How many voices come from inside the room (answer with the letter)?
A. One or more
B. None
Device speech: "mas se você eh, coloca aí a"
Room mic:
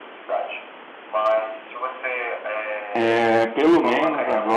A